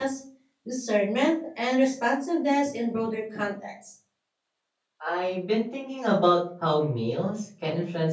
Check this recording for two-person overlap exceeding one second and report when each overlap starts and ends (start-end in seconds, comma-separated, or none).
none